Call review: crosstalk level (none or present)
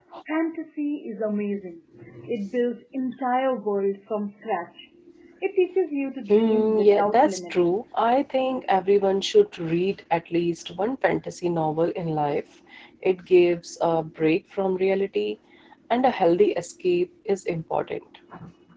present